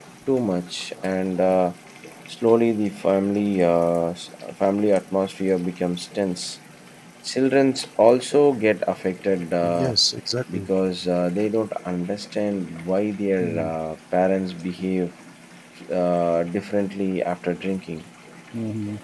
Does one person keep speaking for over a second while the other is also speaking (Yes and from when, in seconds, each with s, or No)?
No